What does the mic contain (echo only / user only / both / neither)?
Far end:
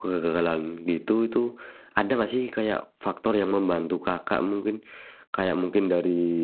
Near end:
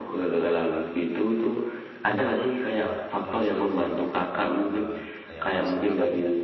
both